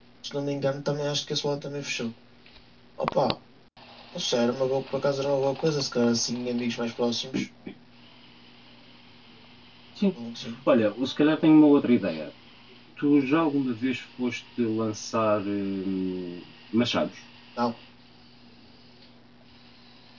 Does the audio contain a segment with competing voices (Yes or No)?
No